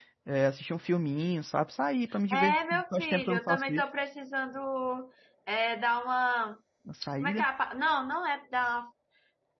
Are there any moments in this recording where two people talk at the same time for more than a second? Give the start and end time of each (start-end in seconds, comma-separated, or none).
2.3-3.8